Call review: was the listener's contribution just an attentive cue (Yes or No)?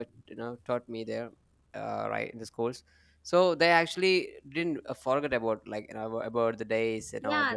No